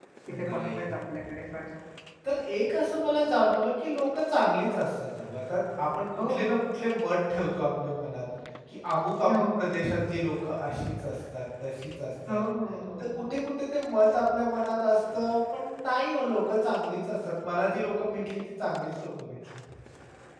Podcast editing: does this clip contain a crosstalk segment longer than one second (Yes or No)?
No